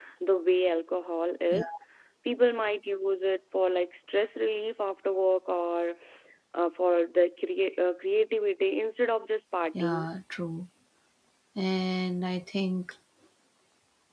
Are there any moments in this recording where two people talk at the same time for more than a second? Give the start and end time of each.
none

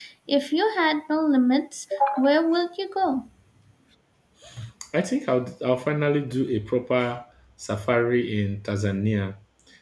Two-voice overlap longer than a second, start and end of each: none

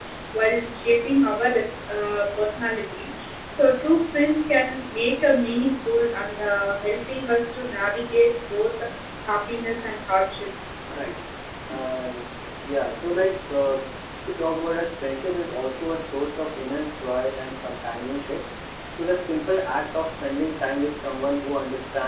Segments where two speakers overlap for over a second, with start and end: none

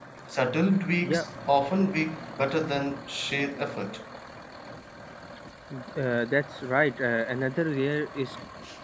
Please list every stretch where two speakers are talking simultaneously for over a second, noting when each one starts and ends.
none

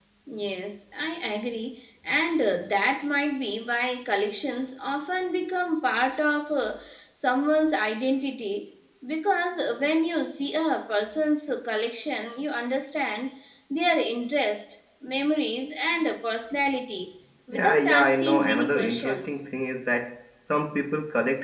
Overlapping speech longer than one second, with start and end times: 17.5-19.4

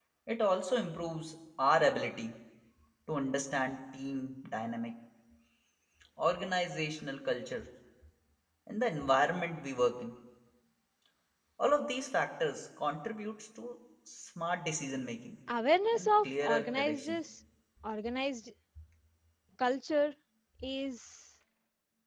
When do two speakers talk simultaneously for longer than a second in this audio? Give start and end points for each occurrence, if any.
15.9-17.2

